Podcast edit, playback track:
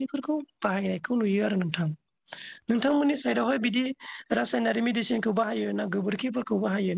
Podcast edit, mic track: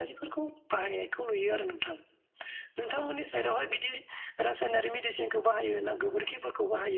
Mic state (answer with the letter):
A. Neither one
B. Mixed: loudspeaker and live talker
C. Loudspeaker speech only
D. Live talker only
C